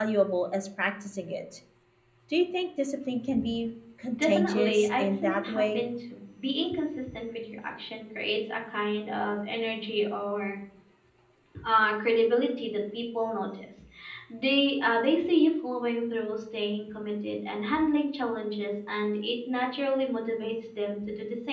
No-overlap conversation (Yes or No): No